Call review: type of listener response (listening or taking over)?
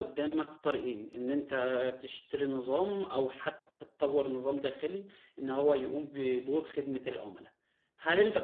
listening